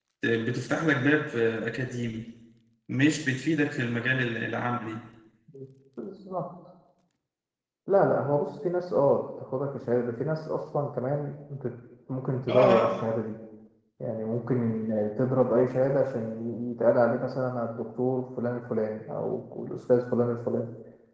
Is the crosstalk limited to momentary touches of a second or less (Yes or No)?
Yes